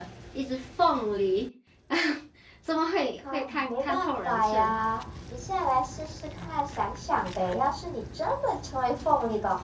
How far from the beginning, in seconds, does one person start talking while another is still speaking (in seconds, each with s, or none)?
3.3 s